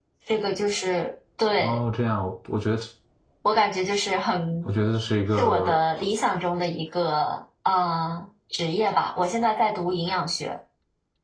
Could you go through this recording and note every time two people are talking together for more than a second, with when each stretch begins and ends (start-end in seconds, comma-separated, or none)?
none